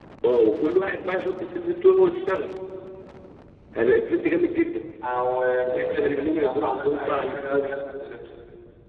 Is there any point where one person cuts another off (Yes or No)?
Yes